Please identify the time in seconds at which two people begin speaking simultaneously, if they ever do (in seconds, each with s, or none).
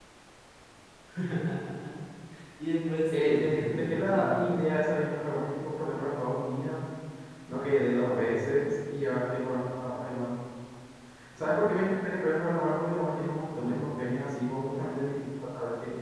3.1 s